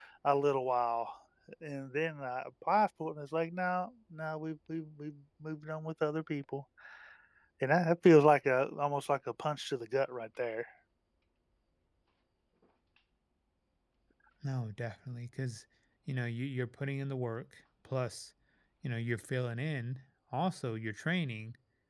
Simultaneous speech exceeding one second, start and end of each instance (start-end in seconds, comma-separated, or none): none